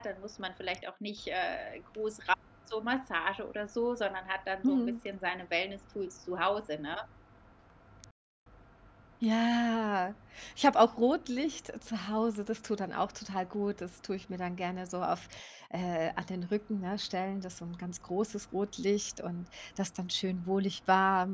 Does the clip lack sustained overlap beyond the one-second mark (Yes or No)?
Yes